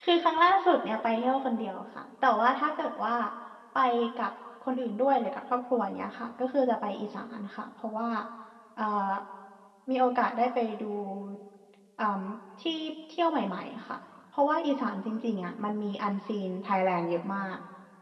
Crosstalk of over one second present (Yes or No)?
No